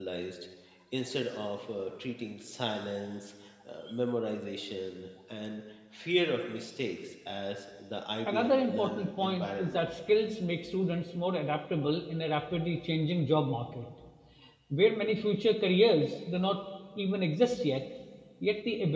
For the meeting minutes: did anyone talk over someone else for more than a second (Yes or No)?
Yes